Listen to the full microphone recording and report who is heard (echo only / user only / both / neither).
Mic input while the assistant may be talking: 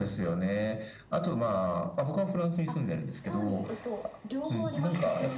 both